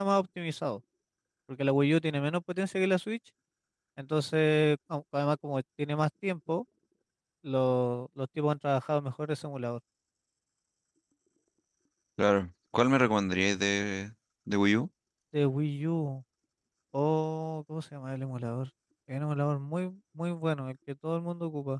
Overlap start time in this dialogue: none

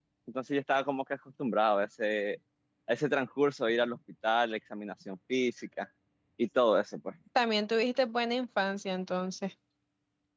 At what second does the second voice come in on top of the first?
none

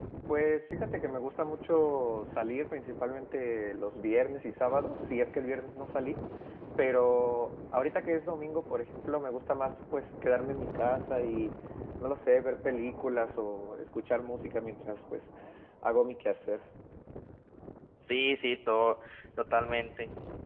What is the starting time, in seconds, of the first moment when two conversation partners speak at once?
none

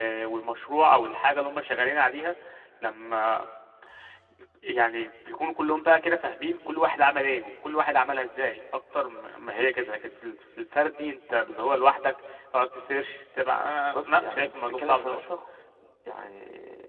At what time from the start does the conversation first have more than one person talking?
14 s

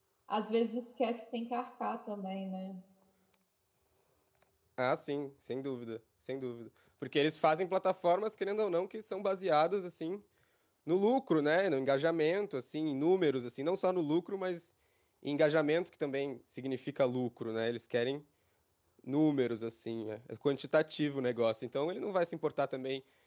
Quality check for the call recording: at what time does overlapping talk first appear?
none

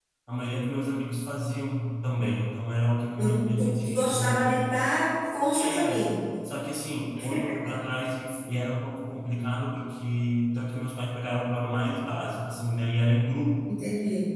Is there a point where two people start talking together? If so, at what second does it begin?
3 s

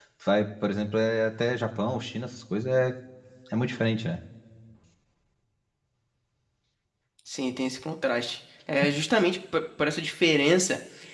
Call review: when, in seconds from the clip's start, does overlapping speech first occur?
none

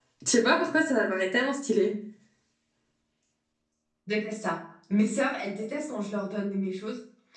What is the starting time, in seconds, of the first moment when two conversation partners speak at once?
none

